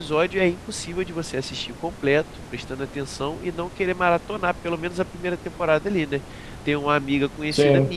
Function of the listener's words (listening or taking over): listening